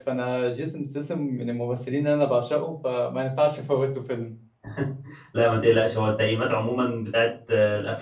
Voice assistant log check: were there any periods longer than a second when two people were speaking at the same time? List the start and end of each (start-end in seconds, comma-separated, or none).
none